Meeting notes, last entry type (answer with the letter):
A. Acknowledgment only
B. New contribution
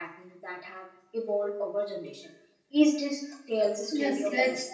B